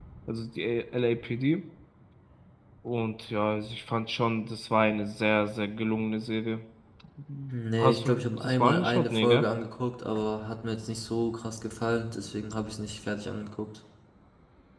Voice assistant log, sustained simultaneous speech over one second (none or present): present